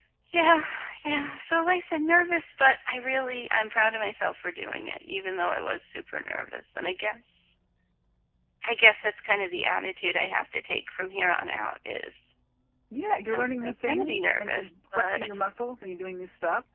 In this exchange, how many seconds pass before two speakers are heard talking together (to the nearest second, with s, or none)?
13 s